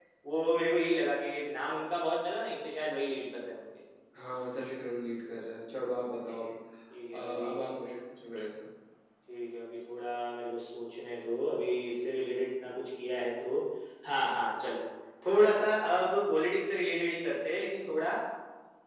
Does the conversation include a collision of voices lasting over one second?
No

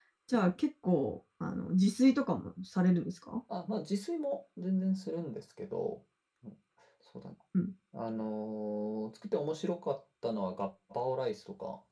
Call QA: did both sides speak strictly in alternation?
Yes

